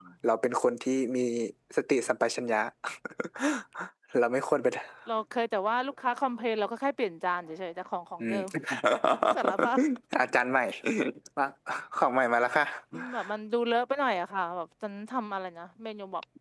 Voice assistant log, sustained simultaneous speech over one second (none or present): none